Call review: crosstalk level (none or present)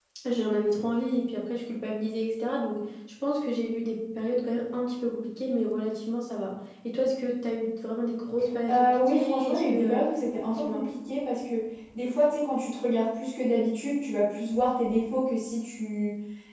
present